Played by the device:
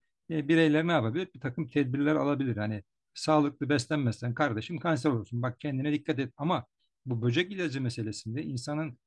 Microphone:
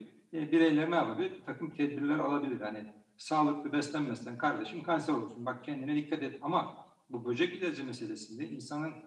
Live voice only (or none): none